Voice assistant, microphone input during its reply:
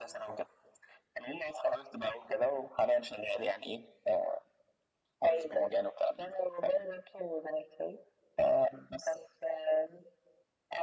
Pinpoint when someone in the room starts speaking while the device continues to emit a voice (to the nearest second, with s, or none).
none